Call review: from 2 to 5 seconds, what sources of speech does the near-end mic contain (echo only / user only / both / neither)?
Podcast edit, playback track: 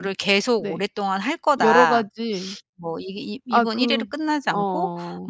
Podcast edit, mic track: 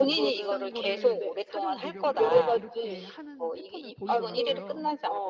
both